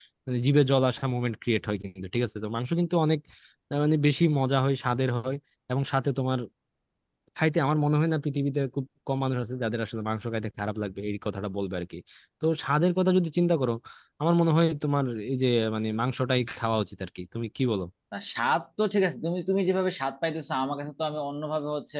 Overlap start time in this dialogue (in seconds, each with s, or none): none